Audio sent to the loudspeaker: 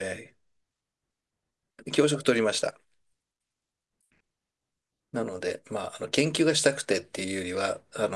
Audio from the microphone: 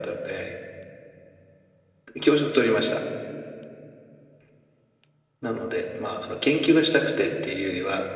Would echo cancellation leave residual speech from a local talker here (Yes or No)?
No